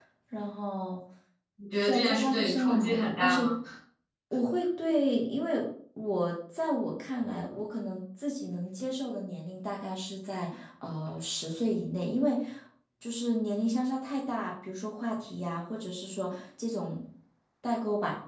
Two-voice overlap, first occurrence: 1.8 s

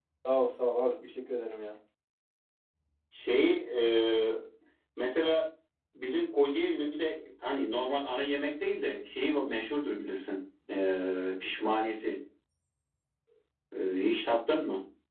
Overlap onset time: none

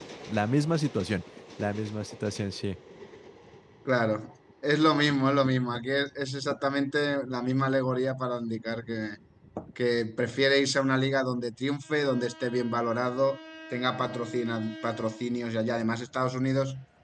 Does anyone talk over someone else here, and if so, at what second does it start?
none

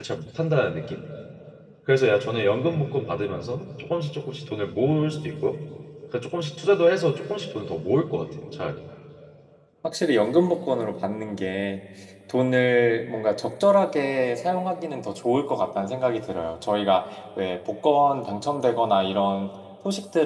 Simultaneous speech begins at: none

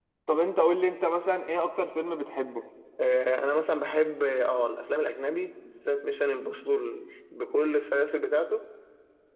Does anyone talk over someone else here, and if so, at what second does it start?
none

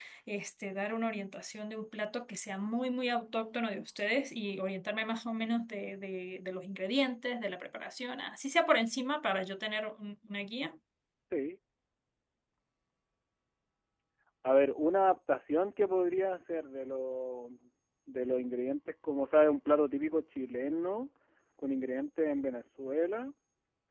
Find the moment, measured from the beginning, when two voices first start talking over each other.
none

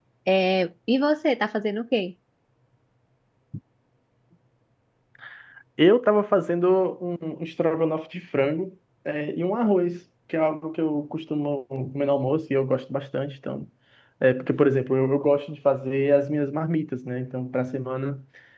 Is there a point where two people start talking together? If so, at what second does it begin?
none

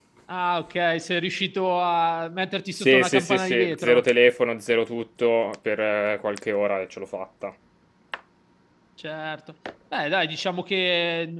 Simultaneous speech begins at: 2.7 s

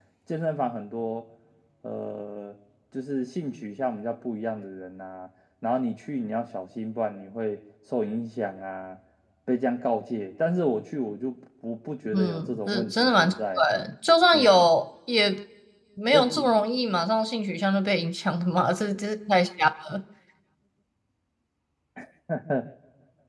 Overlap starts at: 12.1 s

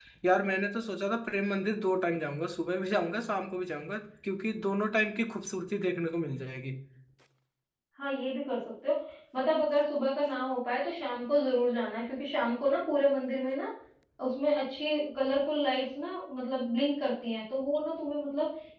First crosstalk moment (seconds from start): none

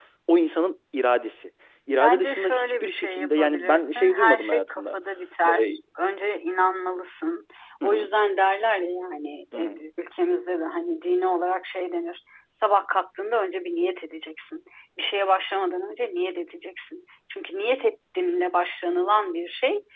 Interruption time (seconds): 2.0 s

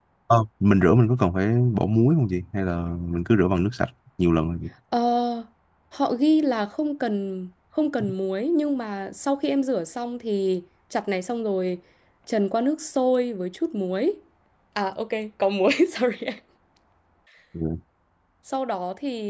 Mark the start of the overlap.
none

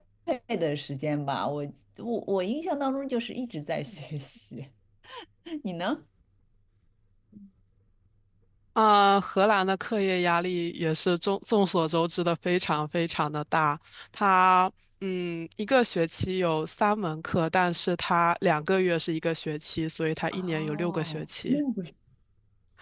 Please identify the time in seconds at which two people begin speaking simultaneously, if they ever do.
20.3 s

